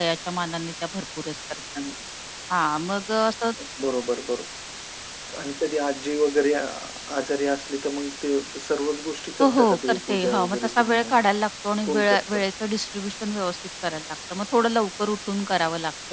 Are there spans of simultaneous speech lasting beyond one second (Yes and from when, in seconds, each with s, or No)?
Yes, from 9.4 s